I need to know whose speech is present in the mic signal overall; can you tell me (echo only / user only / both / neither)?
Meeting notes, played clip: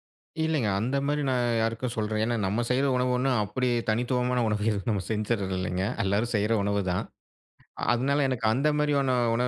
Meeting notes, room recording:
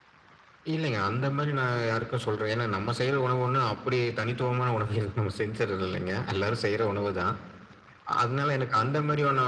echo only